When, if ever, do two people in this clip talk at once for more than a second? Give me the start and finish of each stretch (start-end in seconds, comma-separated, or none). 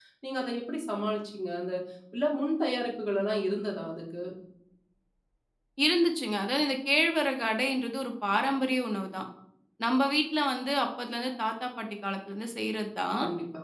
none